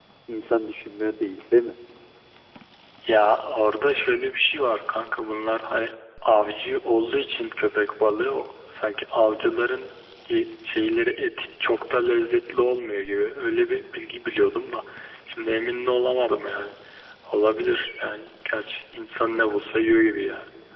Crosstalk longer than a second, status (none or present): none